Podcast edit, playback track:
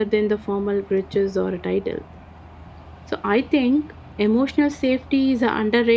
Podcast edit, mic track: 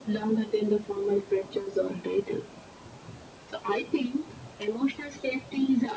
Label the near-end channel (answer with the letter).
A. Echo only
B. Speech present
A